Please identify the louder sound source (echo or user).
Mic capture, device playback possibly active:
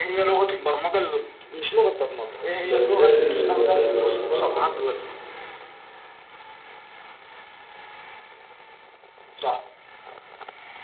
user